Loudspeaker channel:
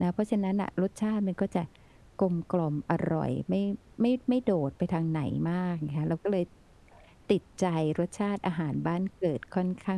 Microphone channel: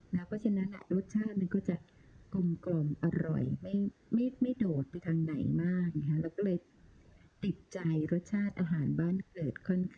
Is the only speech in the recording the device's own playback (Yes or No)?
Yes